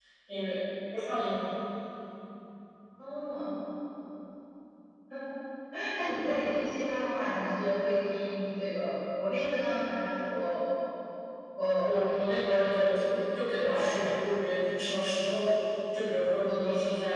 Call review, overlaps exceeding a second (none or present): present